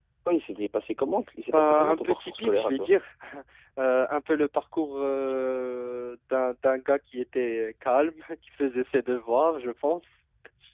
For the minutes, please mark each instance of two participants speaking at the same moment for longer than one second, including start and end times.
1.5-2.9

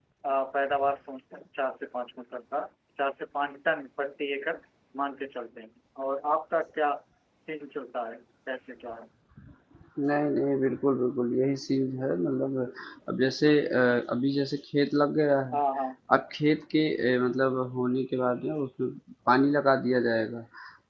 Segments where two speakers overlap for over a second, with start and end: none

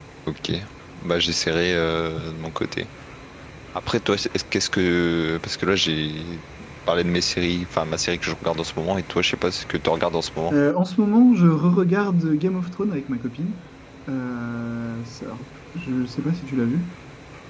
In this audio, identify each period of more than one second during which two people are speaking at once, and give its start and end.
none

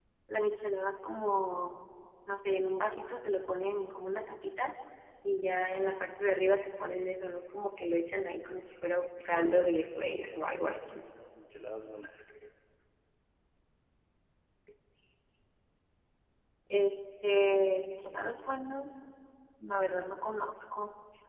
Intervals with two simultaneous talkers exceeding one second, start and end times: 9.3-11.1

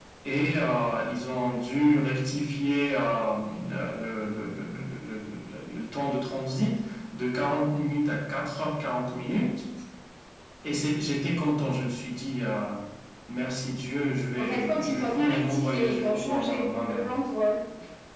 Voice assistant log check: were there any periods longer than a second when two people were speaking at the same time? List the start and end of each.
14.4-17.1

